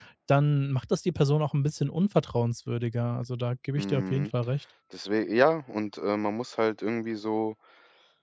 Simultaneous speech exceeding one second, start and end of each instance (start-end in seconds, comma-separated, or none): none